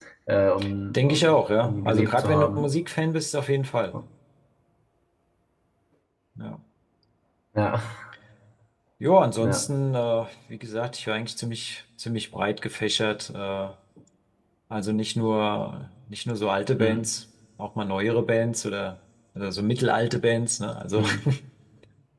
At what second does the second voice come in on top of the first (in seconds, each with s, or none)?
0.9 s